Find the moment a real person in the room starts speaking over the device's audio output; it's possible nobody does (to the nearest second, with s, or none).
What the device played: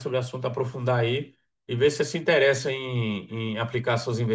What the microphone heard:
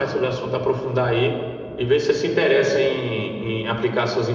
none